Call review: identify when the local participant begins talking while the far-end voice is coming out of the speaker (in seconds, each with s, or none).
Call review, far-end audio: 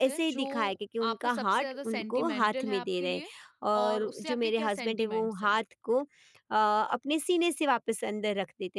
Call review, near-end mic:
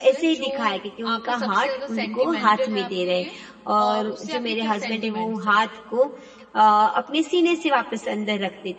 none